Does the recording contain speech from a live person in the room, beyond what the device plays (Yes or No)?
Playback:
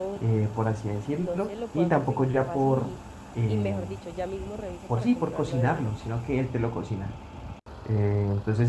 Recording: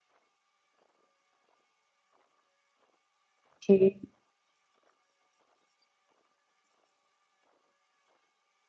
Yes